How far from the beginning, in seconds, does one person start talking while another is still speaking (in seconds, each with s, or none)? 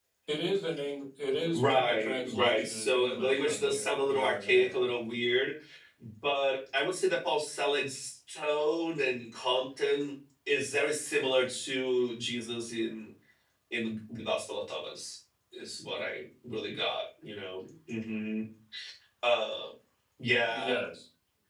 1.5 s